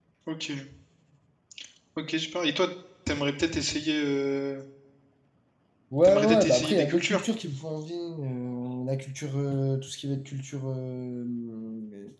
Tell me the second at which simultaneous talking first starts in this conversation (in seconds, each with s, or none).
6.0 s